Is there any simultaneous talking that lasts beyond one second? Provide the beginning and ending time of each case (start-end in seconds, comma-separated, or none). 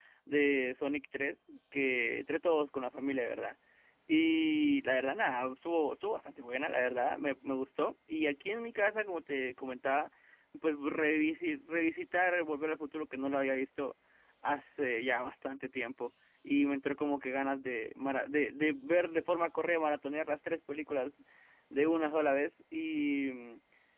none